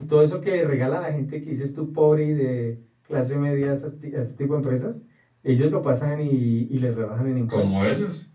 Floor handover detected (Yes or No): Yes